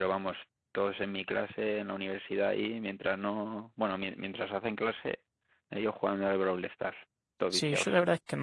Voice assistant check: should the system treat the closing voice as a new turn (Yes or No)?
Yes